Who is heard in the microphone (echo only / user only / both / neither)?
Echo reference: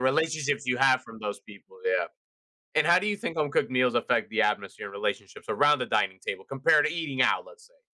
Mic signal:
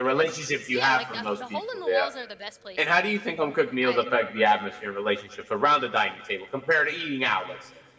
both